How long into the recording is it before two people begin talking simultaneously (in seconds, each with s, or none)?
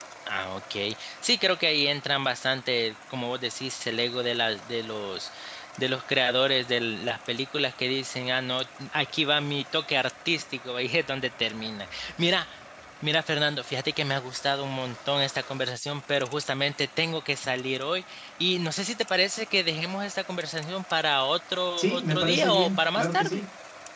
21.8 s